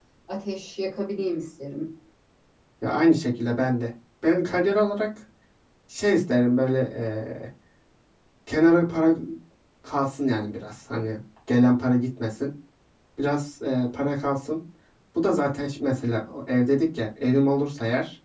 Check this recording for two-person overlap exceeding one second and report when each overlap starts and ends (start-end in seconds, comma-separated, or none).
none